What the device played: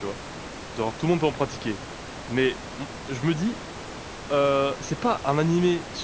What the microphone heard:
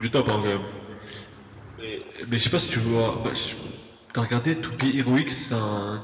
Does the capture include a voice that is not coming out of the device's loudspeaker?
Yes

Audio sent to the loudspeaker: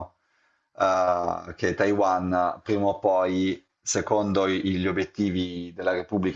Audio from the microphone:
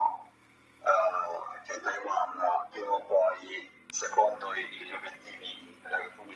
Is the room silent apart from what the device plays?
Yes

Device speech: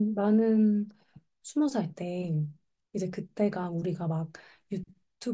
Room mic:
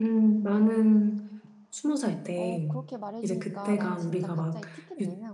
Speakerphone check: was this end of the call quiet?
No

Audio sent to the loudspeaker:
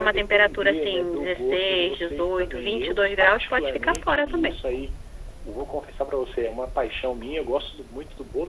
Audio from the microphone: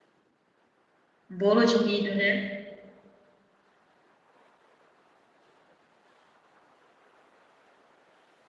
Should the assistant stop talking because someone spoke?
Yes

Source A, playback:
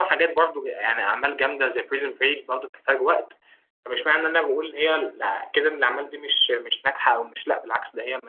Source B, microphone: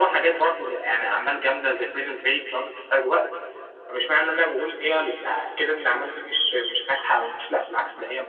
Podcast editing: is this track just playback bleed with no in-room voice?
Yes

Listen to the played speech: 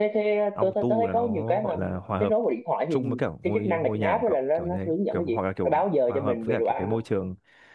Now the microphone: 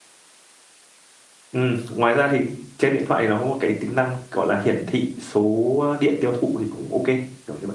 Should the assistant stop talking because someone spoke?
Yes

